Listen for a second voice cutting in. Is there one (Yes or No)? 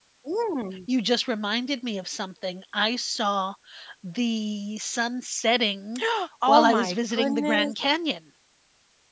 Yes